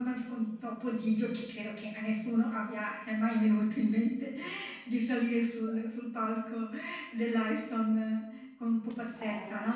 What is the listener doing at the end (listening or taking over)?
listening